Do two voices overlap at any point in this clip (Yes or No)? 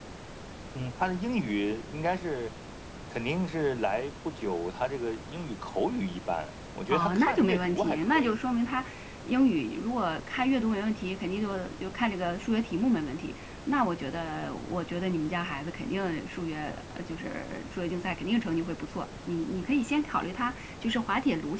Yes